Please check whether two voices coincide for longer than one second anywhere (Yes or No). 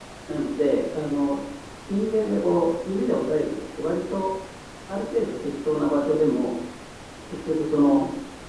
No